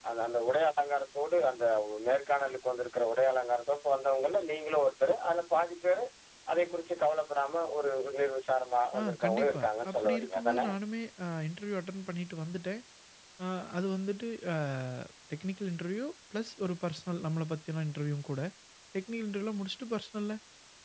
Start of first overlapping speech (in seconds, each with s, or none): 8.9 s